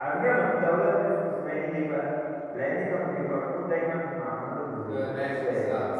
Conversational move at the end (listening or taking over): taking over